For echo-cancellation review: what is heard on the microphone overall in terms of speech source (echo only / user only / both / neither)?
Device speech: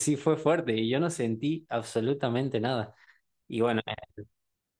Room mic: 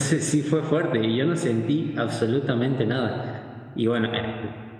echo only